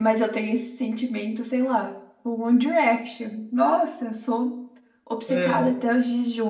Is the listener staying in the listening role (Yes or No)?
Yes